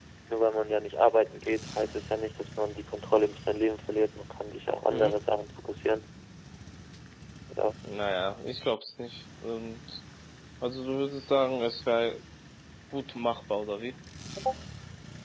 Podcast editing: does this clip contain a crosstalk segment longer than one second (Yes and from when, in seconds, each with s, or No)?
No